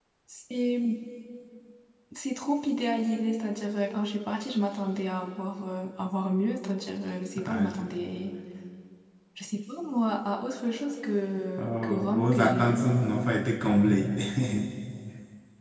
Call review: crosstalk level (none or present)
present